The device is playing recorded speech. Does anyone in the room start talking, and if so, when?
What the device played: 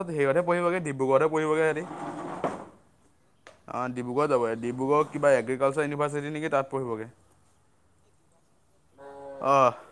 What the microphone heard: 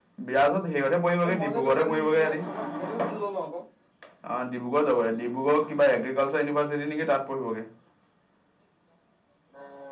1.2 s

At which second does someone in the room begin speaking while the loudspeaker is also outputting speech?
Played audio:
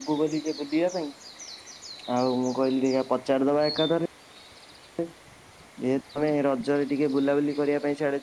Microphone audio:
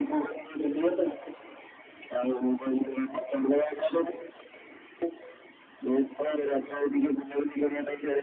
none

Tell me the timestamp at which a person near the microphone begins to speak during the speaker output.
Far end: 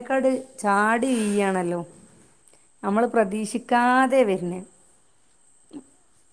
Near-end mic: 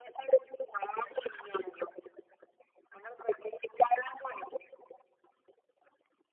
none

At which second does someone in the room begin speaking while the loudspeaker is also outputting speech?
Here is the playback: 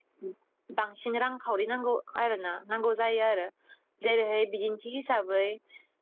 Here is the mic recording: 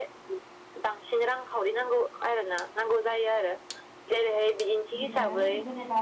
5.0 s

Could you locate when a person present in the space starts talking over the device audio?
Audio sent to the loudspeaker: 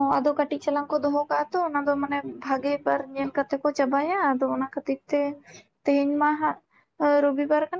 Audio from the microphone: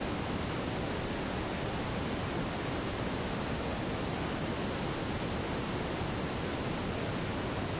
none

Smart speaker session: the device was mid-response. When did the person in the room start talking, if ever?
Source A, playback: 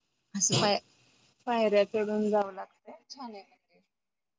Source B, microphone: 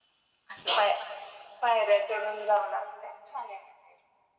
none

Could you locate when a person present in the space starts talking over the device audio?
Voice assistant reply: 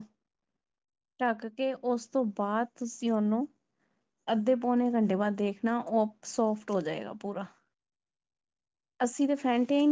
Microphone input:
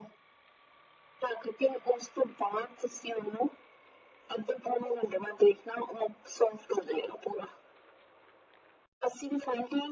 none

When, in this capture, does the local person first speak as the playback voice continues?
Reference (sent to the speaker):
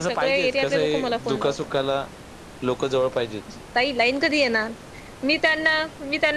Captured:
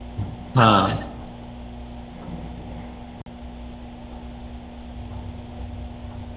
0.6 s

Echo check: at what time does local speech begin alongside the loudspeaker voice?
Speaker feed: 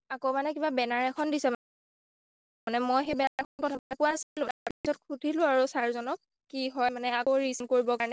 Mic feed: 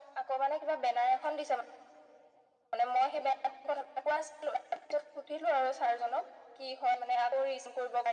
none

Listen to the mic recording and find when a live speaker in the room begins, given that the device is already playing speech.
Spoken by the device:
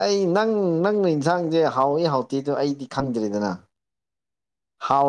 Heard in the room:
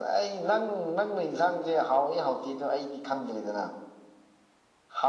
none

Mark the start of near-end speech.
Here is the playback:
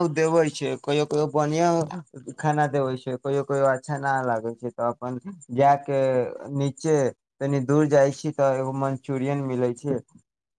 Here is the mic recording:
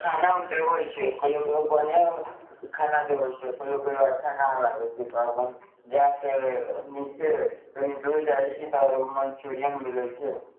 none

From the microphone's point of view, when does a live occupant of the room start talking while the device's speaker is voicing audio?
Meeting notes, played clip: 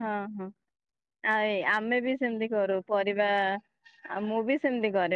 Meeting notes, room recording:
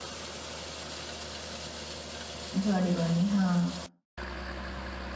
2.6 s

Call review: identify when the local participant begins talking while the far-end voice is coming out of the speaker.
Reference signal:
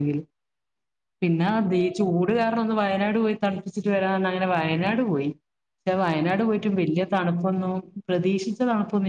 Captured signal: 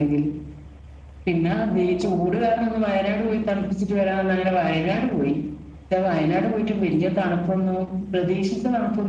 none

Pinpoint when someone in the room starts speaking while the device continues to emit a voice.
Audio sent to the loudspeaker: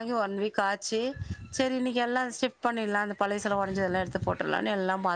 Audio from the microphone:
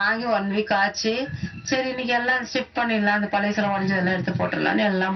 none

